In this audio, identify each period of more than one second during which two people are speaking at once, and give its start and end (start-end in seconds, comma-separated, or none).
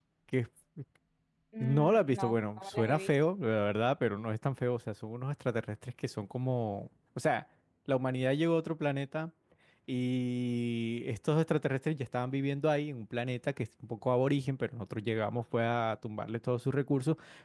1.6-3.2